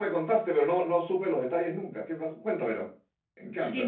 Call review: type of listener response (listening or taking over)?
taking over